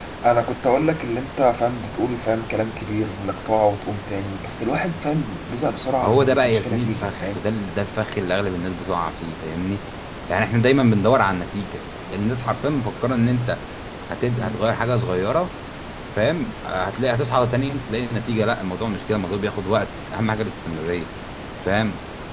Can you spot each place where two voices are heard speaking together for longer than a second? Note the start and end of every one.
6.0-7.4

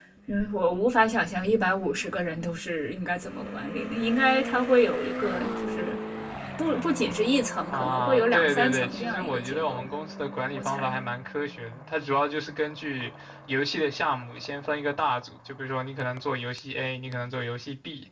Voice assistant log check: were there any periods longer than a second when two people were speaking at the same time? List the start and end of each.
7.7-9.9

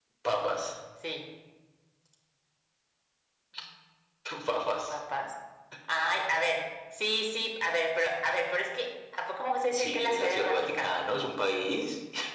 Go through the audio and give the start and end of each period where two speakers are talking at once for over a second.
9.7-10.9

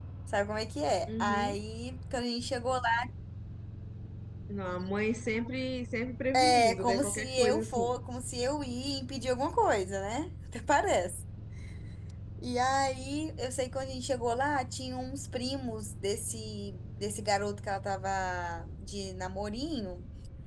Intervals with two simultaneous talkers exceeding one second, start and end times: 6.5-8.0

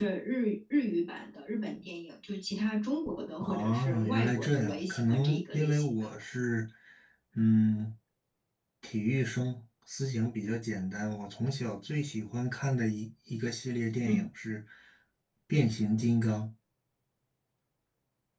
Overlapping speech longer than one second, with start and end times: 3.4-6.1

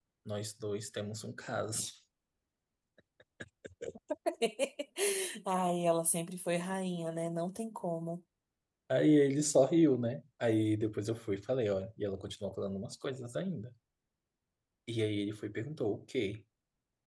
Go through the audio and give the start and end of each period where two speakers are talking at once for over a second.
none

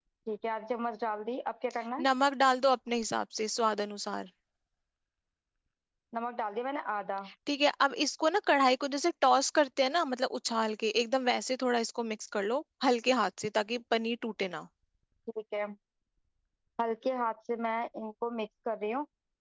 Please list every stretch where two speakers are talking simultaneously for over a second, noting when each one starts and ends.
none

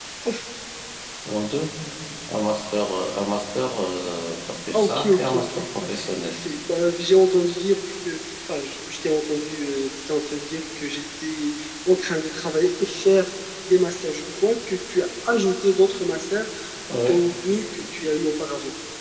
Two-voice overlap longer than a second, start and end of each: 4.7-6.4

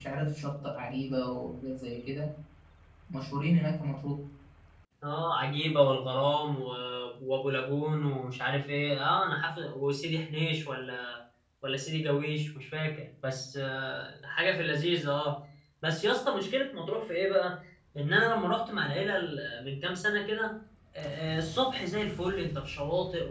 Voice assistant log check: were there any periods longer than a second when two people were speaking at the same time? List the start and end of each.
none

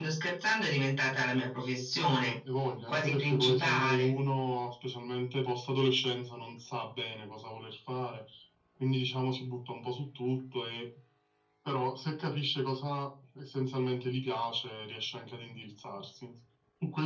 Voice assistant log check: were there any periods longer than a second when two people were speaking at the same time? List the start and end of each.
2.9-4.1

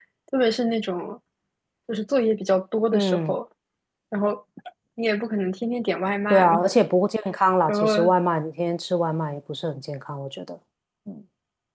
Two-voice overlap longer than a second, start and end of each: none

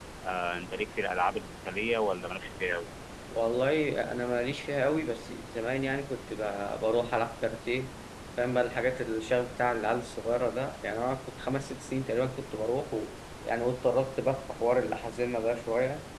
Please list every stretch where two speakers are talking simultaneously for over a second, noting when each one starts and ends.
none

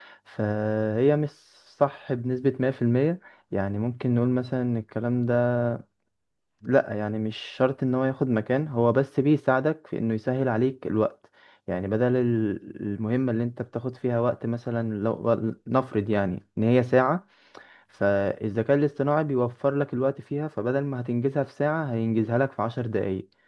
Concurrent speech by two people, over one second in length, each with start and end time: none

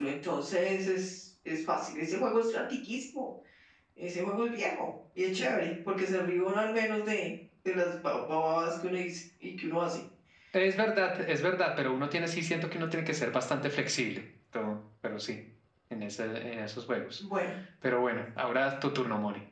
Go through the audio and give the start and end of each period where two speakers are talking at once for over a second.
none

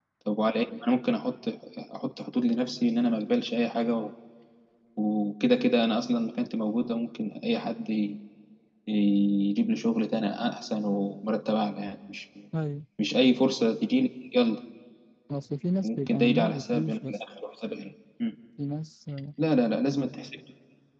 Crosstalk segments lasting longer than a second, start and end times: 15.8-17.2

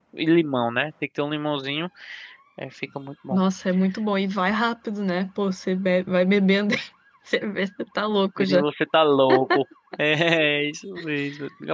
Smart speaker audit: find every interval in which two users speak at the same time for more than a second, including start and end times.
none

